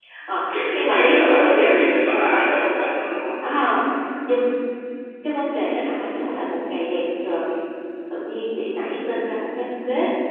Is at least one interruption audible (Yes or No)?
Yes